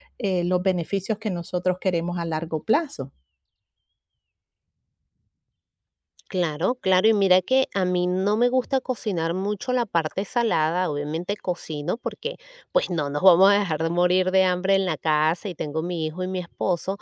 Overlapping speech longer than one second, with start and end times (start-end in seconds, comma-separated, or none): none